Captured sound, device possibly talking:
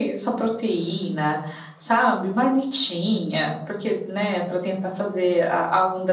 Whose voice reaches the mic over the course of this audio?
echo only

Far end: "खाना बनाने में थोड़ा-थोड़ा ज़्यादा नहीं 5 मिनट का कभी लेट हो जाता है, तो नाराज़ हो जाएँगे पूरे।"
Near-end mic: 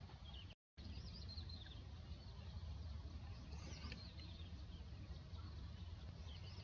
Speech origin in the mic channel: neither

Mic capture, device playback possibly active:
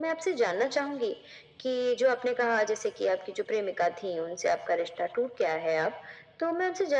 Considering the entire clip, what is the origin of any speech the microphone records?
echo only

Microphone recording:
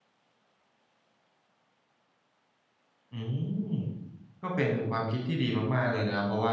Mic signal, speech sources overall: user only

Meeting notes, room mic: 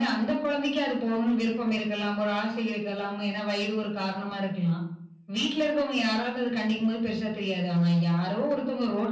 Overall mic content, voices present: echo only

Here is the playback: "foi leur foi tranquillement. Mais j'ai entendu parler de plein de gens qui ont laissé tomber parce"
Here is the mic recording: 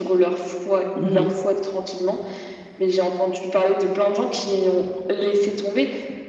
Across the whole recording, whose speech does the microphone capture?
both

